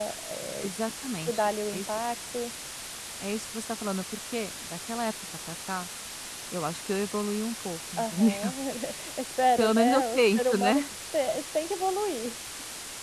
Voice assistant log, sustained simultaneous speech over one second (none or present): present